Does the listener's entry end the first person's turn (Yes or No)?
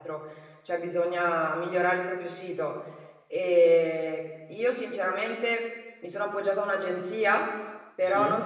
No